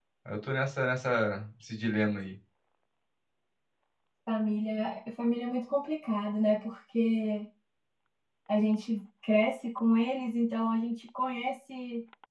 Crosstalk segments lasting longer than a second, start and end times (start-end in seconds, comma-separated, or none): none